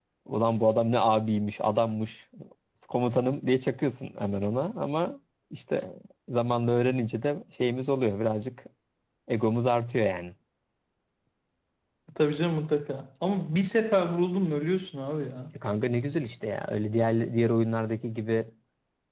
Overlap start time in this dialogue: none

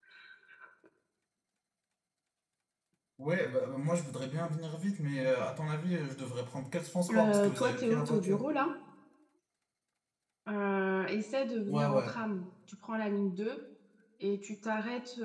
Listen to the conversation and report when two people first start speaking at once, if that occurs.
7.1 s

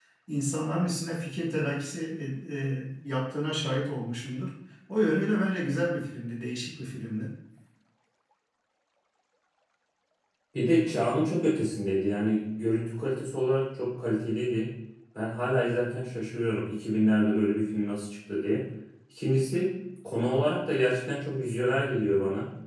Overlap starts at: none

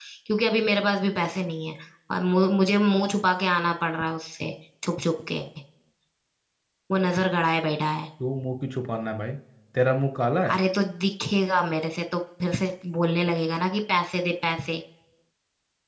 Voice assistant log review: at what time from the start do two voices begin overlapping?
none

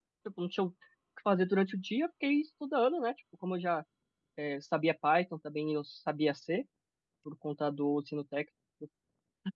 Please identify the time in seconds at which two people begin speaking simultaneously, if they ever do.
none

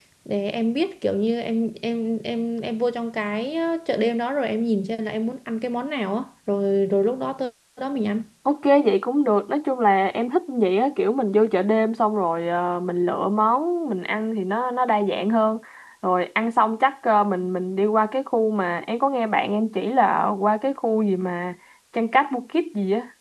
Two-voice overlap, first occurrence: none

